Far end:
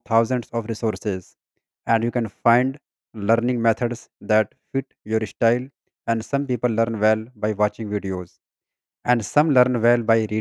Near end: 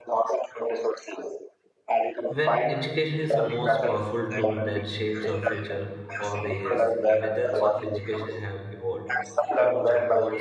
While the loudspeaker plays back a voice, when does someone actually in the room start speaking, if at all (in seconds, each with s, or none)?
2.3 s